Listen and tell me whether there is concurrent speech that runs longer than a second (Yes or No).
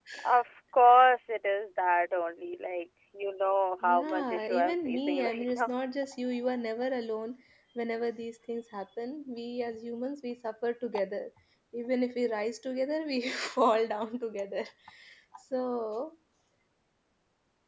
Yes